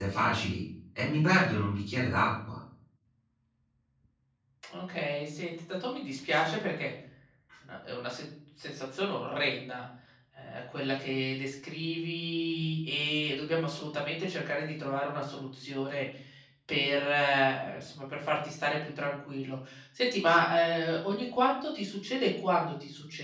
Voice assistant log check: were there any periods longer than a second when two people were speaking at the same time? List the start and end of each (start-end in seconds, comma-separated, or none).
none